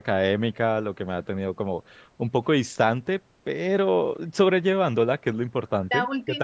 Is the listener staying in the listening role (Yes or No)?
No